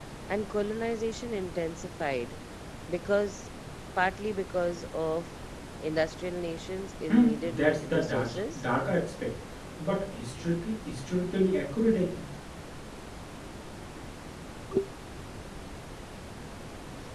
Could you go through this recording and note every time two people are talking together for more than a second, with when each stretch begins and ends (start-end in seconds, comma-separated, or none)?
7.1-8.7